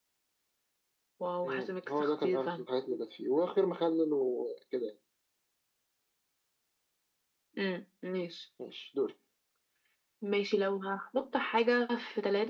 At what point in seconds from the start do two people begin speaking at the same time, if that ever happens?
1.4 s

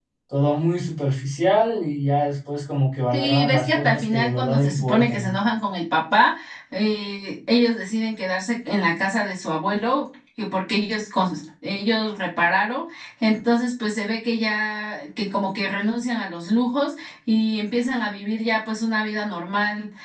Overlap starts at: 3.1 s

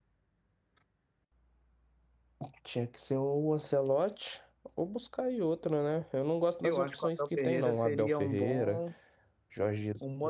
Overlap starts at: 6.6 s

